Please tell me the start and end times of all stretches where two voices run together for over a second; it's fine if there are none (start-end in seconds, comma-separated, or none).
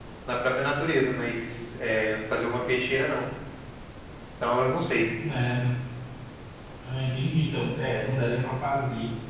none